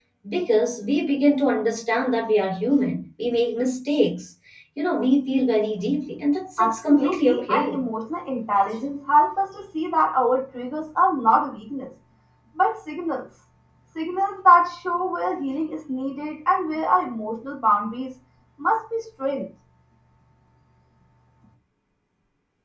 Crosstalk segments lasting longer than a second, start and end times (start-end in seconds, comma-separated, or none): 6.6-7.8